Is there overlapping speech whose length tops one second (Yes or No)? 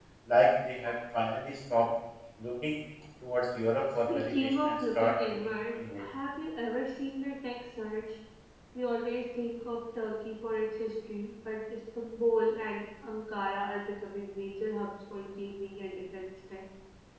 Yes